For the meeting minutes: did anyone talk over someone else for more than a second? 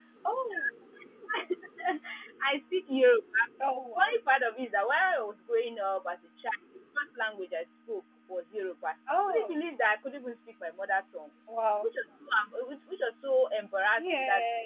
No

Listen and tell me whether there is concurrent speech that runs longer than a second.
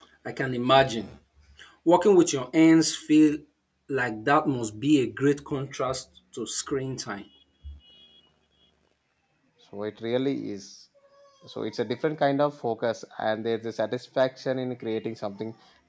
No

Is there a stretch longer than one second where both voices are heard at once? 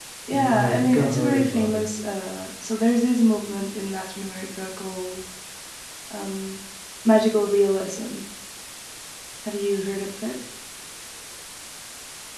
Yes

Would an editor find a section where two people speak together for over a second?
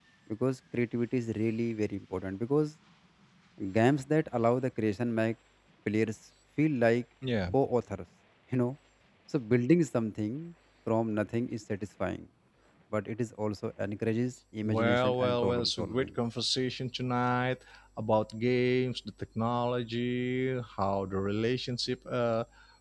Yes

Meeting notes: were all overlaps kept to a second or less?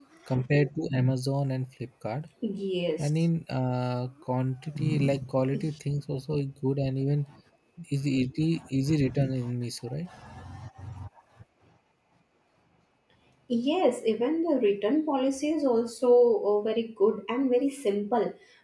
Yes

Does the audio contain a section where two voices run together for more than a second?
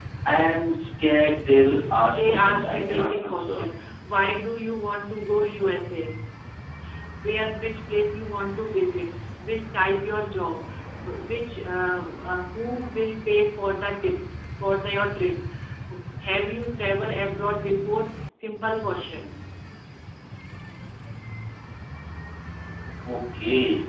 Yes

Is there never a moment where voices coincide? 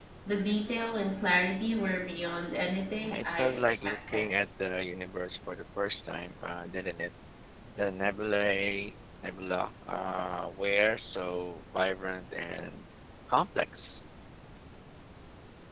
No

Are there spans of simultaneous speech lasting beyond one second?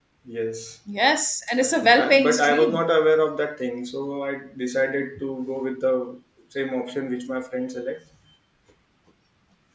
Yes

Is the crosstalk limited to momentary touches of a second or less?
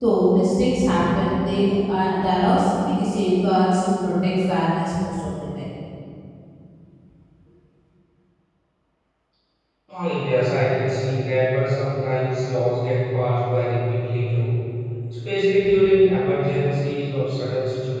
Yes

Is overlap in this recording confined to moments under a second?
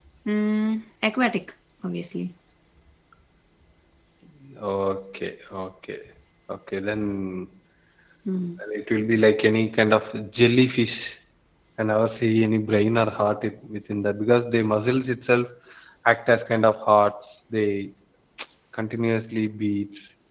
Yes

